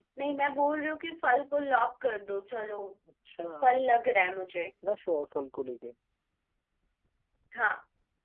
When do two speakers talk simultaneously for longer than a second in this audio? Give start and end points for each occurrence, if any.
none

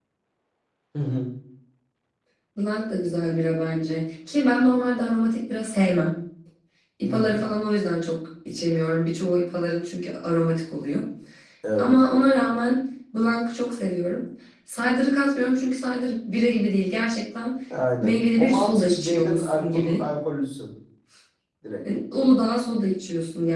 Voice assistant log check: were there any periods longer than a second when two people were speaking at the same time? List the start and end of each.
18.0-20.0

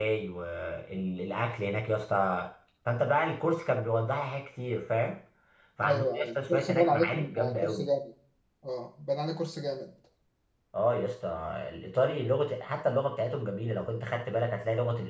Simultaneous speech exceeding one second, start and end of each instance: 5.8-7.8

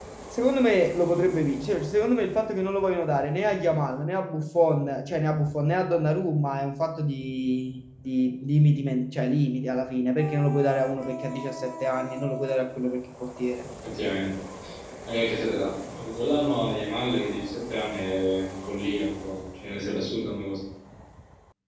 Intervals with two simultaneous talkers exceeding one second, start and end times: none

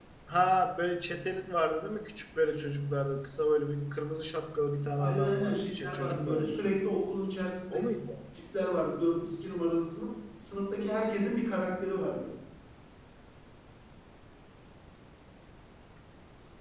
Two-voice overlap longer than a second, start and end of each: 5.0-6.6

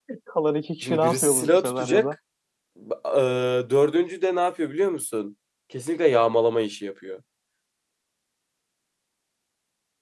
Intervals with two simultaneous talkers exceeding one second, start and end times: 0.8-2.0

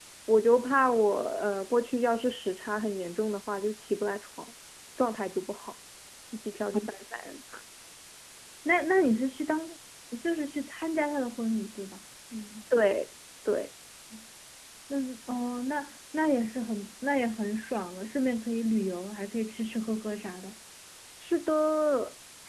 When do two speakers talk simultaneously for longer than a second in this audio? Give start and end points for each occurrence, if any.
none

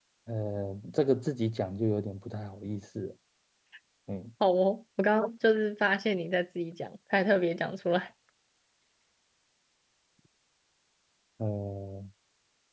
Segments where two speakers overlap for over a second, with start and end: none

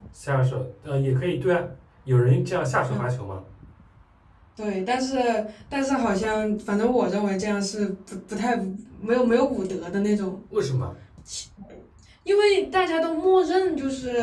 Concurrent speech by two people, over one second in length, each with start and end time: none

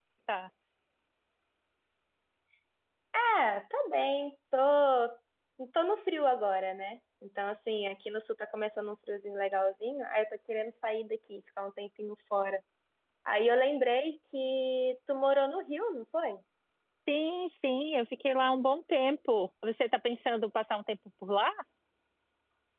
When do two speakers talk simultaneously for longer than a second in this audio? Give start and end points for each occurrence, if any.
none

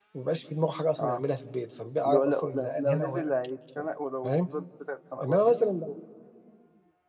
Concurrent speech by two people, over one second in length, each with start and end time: 2.1-3.3

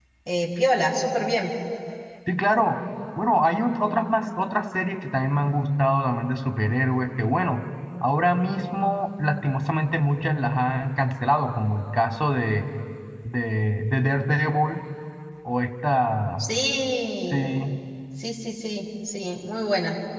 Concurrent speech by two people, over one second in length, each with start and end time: none

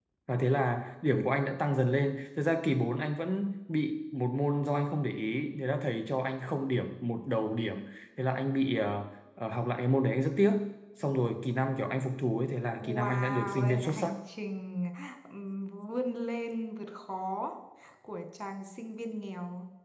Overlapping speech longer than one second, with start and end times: 12.8-14.1

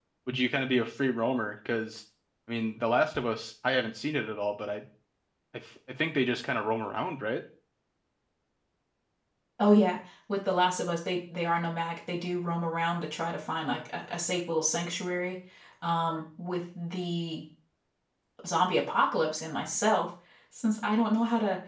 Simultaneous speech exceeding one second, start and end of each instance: none

